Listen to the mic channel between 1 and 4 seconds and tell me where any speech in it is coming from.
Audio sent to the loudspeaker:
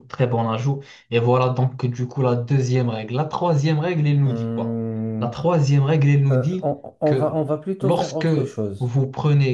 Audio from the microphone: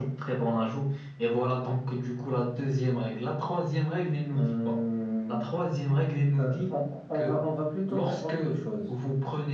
echo only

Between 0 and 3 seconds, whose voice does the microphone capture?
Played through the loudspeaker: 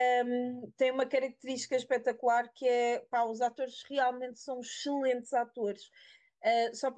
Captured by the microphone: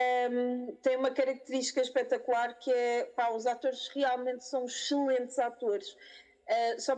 echo only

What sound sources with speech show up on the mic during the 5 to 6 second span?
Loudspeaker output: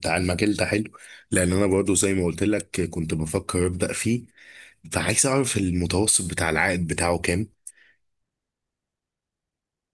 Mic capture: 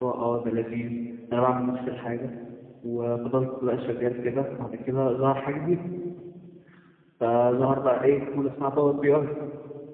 user only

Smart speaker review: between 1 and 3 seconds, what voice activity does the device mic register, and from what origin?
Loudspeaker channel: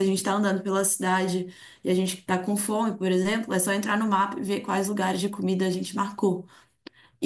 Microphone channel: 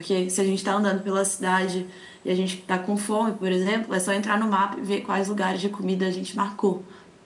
echo only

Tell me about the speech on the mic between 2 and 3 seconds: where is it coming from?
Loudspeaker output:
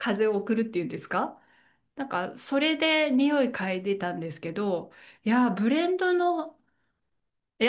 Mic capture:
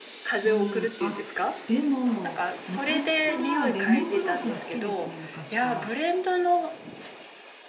both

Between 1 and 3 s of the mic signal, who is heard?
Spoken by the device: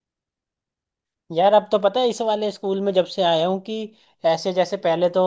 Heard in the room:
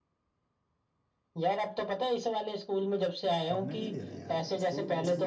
echo only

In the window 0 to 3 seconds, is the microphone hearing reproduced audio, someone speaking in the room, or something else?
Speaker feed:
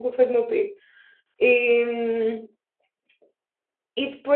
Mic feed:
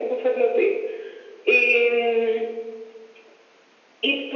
echo only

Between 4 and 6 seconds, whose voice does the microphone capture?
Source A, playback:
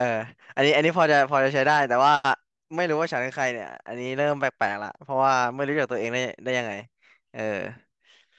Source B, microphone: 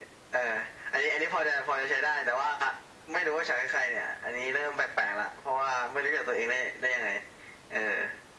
echo only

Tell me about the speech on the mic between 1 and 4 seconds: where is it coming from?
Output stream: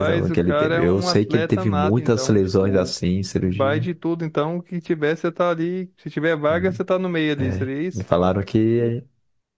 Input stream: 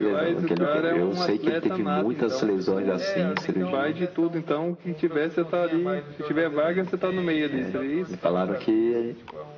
both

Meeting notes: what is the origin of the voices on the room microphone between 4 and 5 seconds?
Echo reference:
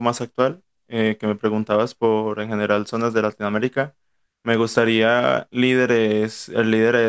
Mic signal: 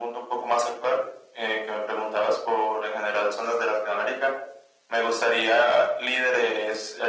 echo only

